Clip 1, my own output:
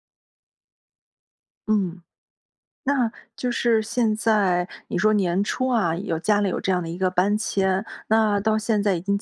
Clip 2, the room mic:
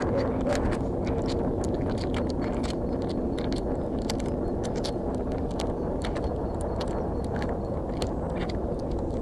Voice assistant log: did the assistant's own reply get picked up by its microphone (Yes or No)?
No